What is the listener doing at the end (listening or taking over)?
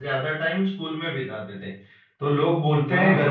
listening